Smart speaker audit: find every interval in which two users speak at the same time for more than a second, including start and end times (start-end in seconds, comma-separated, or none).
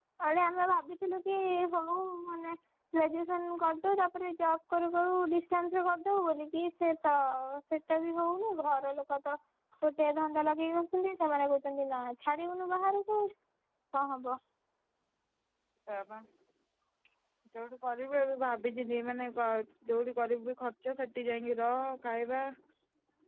none